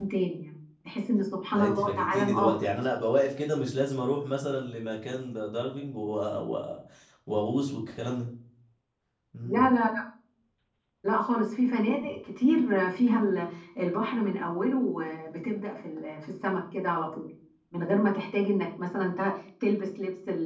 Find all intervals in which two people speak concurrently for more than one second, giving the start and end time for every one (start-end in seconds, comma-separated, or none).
1.5-2.8